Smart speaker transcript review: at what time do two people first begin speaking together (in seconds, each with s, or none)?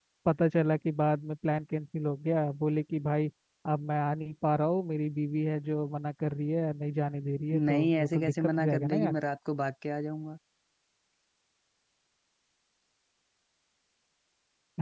7.5 s